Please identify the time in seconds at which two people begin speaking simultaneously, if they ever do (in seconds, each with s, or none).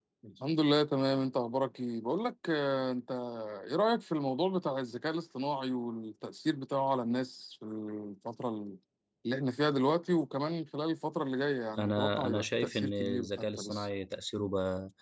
11.8 s